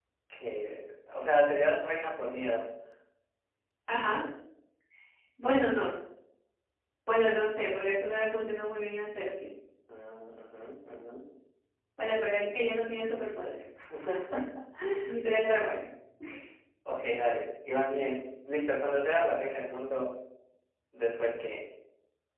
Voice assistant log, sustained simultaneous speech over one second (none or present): none